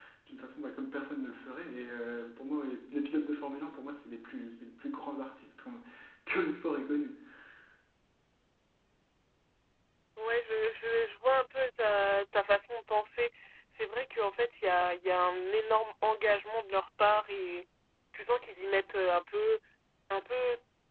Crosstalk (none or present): none